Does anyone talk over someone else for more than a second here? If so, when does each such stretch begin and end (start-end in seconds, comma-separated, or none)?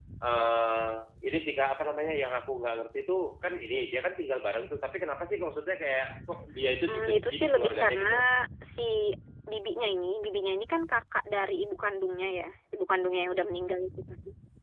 6.9-8.1